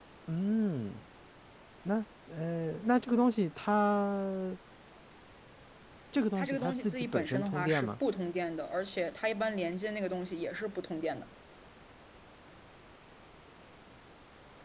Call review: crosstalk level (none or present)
present